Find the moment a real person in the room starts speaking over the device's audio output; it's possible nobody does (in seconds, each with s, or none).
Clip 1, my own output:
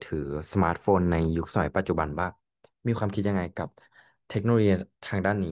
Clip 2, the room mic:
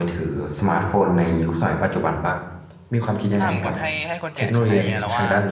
3.3 s